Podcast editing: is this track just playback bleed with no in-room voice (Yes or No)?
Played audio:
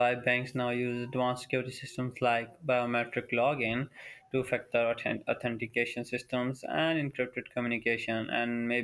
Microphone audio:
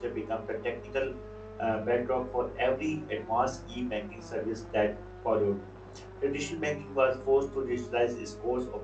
No